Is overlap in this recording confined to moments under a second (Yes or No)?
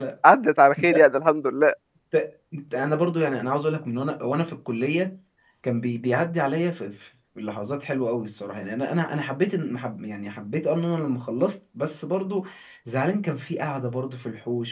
Yes